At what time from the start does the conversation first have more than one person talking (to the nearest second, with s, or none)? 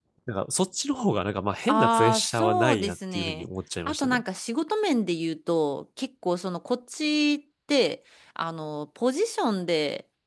2 s